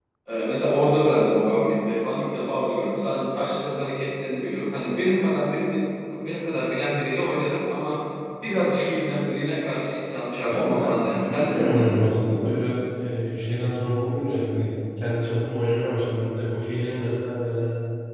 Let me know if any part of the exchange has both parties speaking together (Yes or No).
Yes